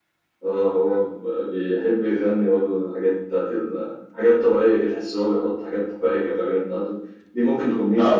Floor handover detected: Yes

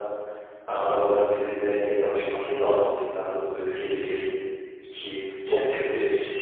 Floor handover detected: Yes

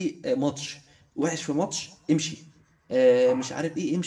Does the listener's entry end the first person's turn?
No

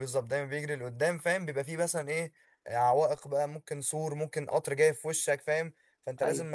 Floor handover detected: No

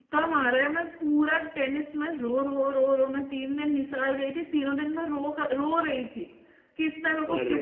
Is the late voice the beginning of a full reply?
No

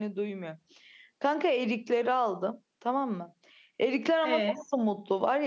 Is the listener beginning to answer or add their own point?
No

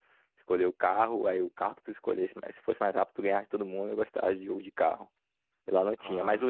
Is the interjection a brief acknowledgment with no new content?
Yes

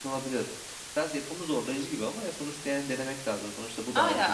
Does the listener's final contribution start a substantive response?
Yes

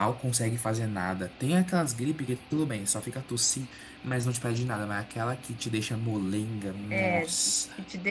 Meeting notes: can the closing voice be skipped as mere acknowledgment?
No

